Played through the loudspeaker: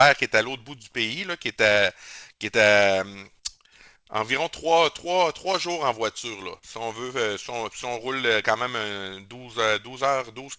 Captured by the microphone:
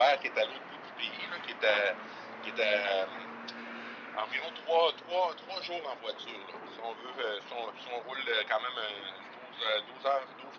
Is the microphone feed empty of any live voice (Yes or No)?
Yes